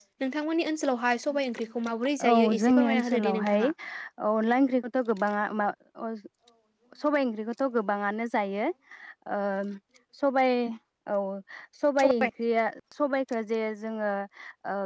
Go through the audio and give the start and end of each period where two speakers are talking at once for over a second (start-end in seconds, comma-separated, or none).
2.2-3.6